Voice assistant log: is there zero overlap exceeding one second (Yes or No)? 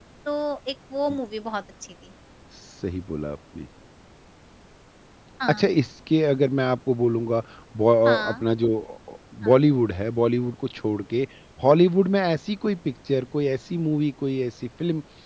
Yes